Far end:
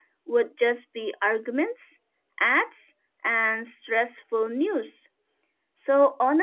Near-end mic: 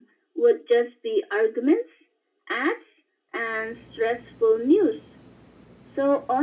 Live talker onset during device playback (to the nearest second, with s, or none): none